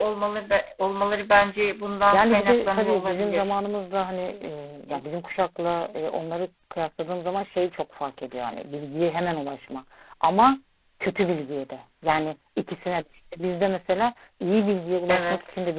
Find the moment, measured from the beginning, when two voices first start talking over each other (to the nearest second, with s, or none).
2 s